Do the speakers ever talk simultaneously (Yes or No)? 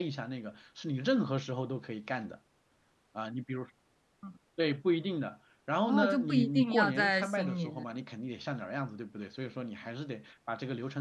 Yes